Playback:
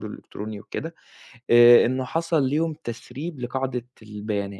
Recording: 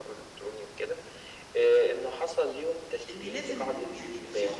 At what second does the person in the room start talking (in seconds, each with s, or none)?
3.1 s